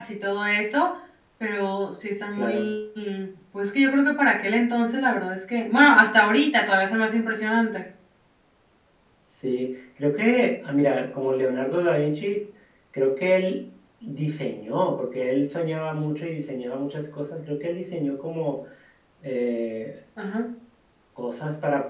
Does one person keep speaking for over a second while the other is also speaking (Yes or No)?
No